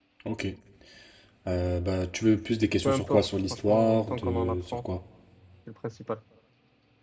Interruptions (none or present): present